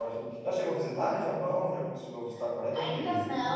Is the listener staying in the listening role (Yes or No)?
No